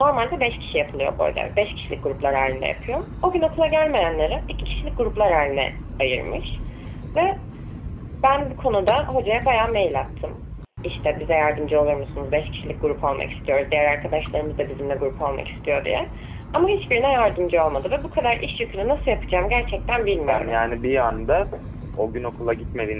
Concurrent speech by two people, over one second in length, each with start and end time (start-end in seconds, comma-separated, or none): none